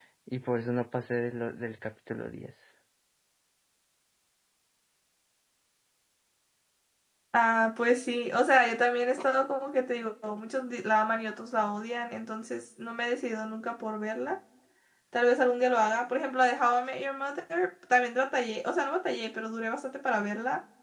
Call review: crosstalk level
none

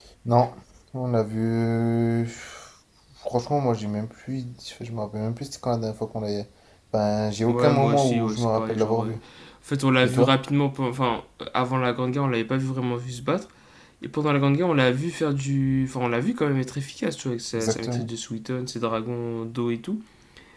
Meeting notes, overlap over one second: present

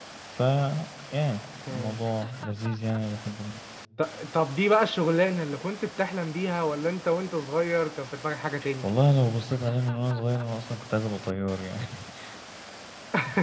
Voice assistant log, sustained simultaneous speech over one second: none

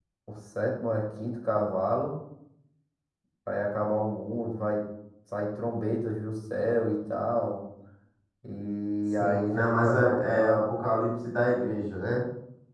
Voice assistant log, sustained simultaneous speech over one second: present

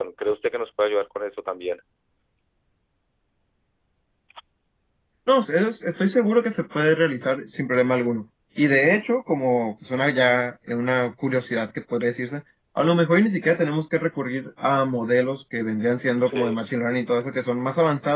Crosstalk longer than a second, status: none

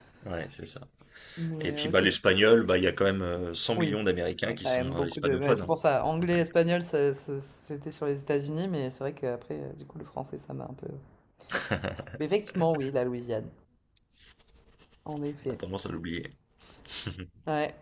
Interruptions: present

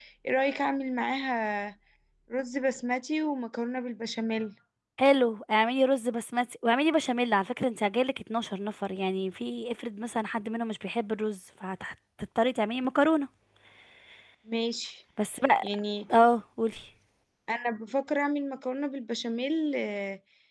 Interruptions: none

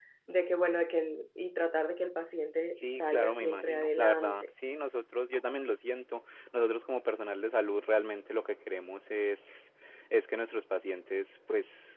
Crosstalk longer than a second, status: present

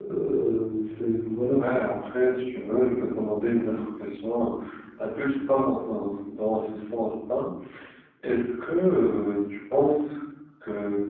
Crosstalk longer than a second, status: none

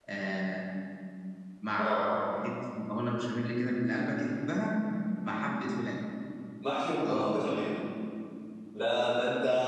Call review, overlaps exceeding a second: none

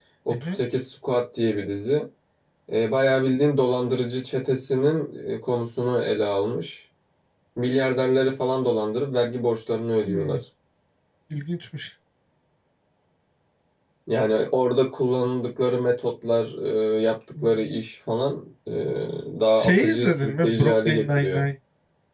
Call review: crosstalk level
present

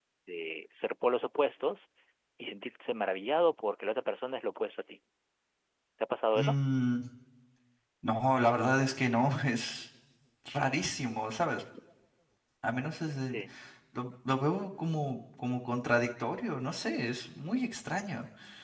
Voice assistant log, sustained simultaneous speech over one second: none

